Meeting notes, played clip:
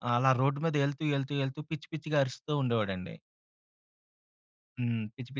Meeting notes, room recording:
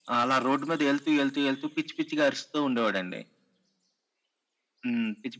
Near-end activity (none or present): none